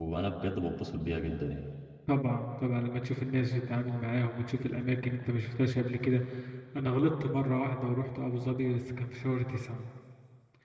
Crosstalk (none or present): none